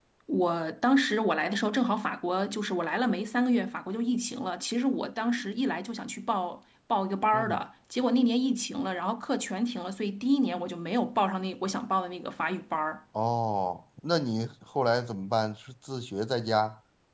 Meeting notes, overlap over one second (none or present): none